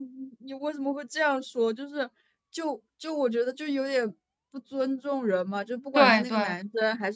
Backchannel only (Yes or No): Yes